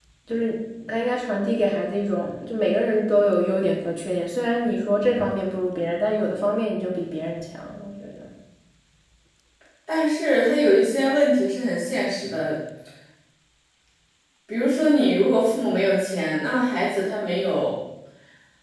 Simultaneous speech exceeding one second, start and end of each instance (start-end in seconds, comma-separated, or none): none